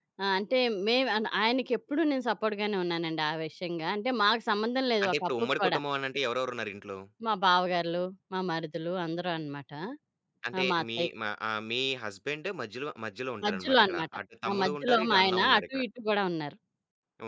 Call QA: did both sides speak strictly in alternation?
No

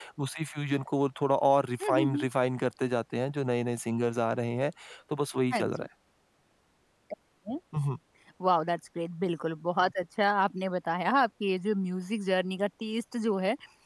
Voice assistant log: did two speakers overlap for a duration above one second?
No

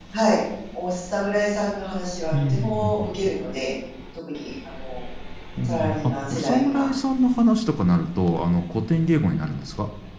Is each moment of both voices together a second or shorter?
No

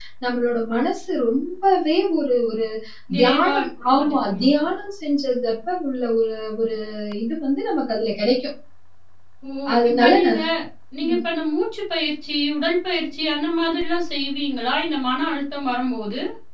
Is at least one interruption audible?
Yes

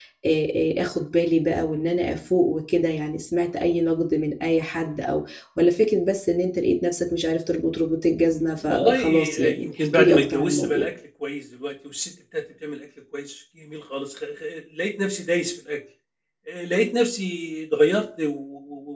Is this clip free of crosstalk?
No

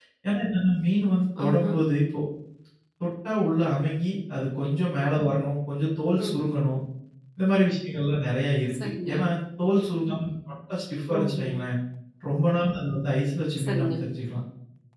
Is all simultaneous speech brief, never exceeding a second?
Yes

